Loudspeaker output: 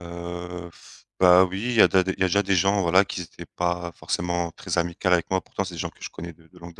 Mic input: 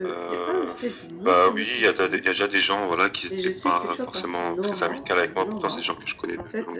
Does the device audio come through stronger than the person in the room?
Yes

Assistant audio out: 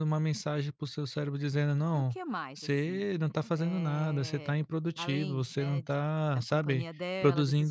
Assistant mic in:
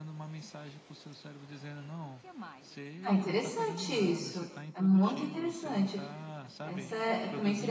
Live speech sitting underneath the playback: No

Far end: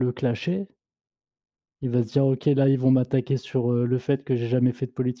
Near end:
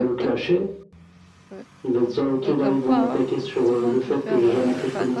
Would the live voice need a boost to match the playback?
Yes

